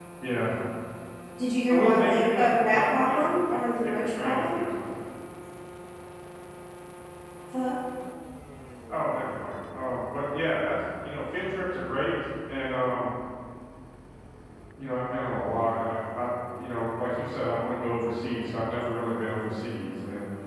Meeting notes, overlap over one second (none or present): present